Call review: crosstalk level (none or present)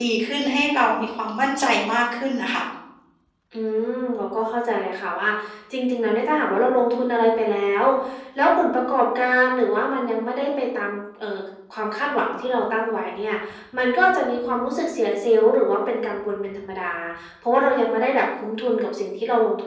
none